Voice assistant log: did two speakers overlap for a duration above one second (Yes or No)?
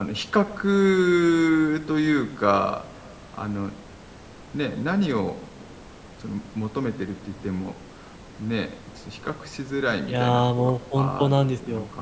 Yes